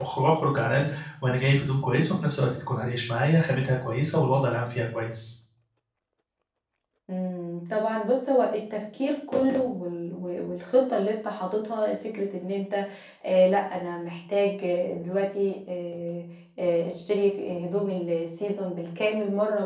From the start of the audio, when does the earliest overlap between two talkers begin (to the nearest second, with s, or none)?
none